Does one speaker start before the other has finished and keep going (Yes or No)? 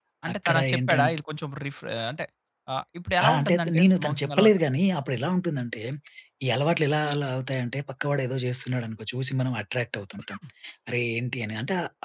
Yes